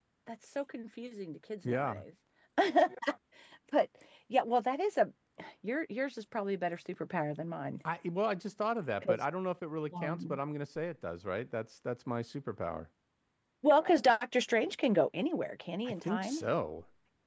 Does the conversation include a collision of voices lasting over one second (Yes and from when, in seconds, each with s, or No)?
No